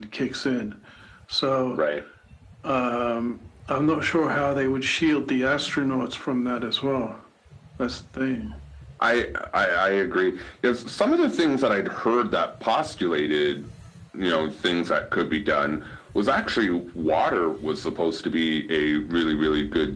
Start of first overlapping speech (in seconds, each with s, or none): none